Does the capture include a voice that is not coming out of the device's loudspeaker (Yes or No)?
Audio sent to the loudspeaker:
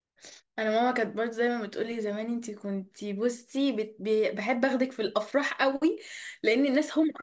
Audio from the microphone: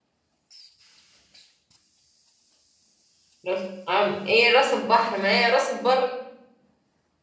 Yes